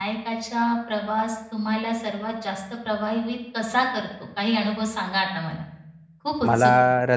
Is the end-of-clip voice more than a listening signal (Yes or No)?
Yes